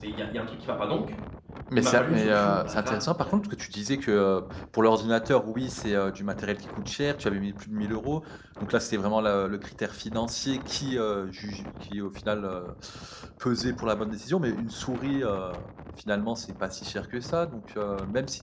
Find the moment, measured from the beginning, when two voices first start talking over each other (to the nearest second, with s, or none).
2 s